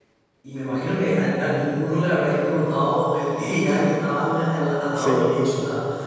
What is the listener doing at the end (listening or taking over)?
listening